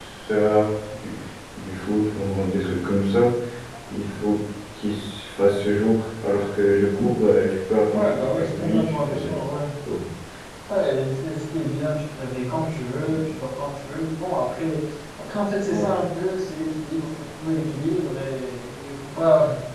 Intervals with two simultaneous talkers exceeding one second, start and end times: 7.9-9.6

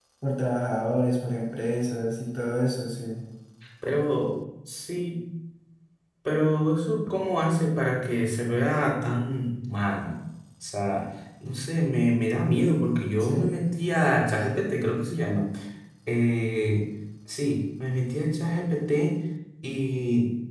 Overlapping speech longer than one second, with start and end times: none

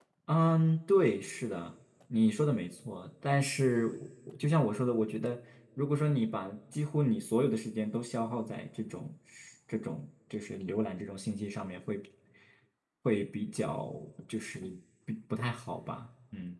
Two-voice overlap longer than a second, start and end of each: none

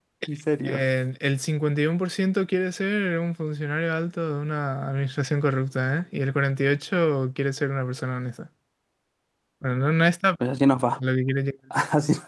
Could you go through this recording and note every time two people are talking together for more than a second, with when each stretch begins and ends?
none

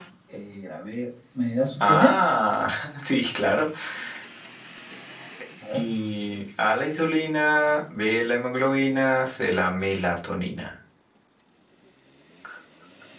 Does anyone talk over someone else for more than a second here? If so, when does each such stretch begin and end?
none

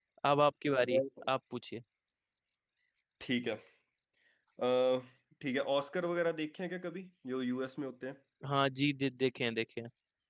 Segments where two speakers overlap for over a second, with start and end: none

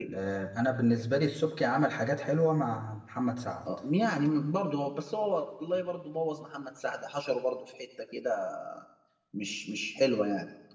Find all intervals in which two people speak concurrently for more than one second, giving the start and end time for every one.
none

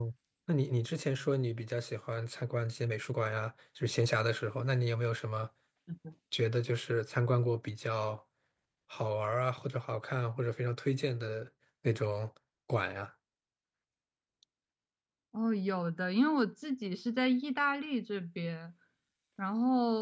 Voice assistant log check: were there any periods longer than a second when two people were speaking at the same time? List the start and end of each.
none

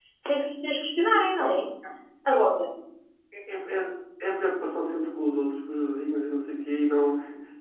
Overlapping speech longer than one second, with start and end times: none

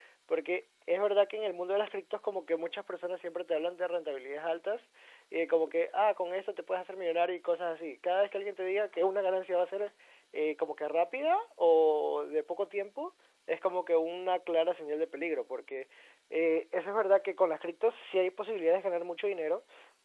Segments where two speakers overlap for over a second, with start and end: none

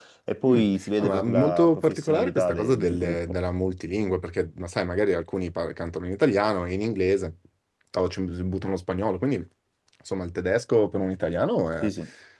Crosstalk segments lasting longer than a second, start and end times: 1.0-3.4

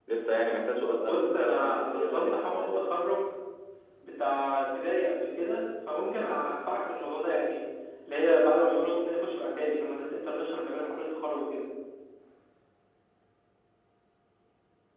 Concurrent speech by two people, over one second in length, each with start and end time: 1.0-2.9

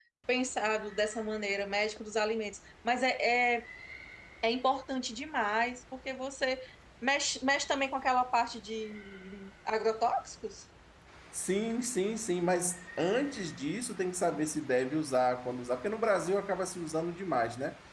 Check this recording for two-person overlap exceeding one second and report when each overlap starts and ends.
none

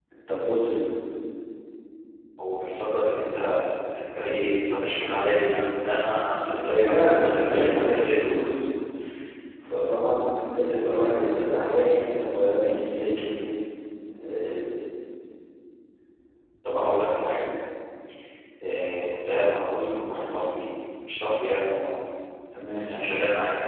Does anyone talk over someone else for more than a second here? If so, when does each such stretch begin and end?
6.7-8.2

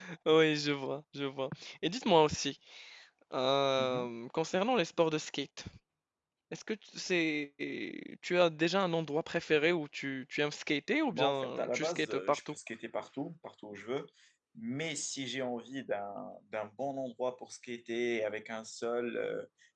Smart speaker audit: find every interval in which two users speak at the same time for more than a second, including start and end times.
11.1-12.6

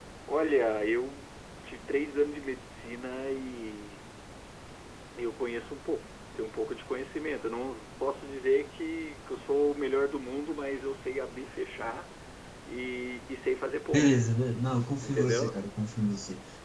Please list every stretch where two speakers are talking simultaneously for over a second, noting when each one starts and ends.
none

